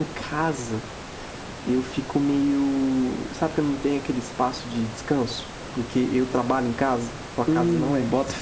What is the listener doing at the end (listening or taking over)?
taking over